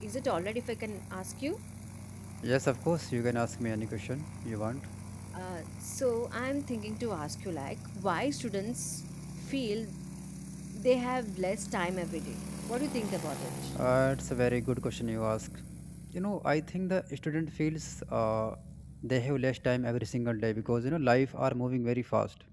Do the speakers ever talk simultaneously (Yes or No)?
No